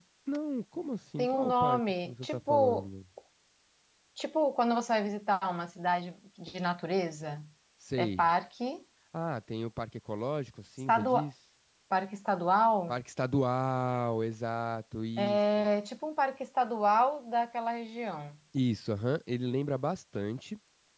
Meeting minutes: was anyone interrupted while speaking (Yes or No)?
Yes